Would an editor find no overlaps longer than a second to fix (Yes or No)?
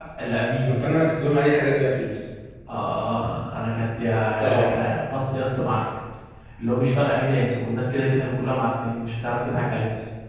Yes